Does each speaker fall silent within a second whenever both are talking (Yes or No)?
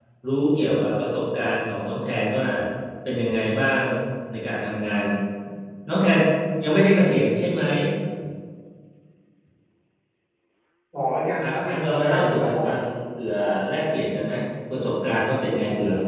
No